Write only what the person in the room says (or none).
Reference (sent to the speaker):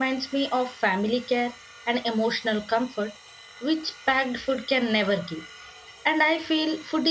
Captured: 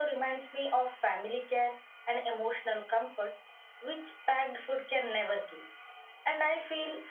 none